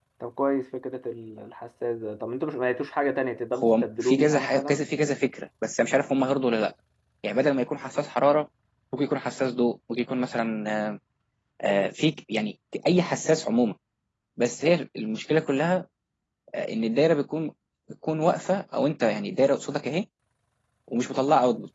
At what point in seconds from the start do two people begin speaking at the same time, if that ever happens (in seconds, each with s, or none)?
3.5 s